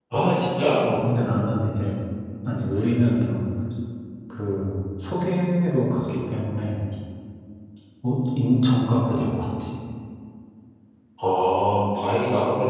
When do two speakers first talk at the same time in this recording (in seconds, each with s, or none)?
none